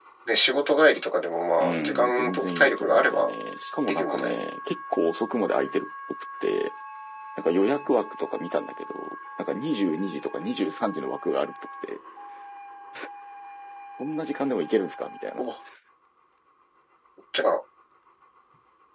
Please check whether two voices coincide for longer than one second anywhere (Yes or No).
Yes